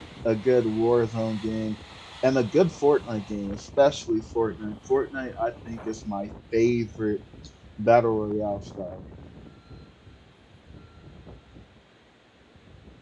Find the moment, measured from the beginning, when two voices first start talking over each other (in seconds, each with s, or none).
none